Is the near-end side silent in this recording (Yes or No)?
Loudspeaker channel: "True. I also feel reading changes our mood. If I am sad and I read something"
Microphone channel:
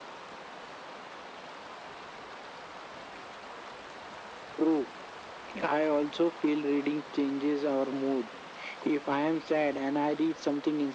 Yes